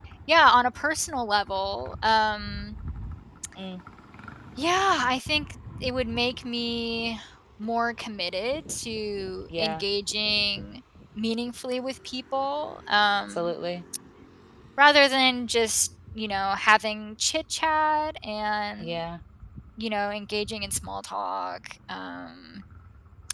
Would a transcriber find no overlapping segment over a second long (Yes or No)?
Yes